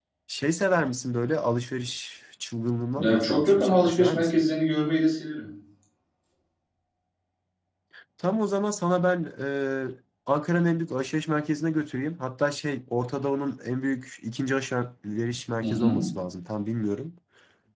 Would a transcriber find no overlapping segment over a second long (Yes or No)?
No